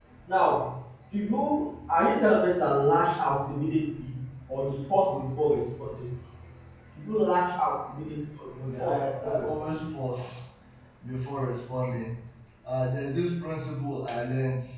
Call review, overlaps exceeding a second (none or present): present